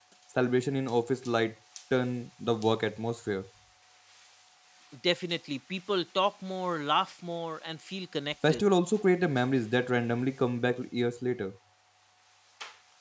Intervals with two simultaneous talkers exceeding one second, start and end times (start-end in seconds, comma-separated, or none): none